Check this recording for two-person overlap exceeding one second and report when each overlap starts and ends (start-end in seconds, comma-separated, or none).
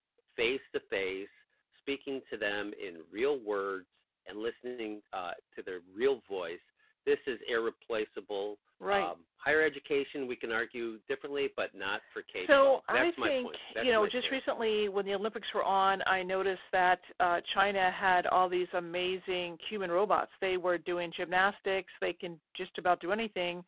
12.3-14.7